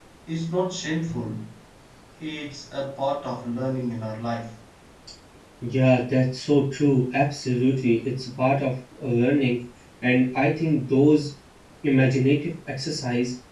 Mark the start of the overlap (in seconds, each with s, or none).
none